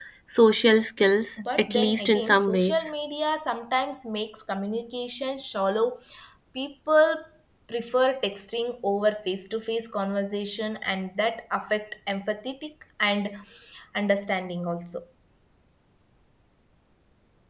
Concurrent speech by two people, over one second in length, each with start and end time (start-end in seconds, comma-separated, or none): 1.6-2.9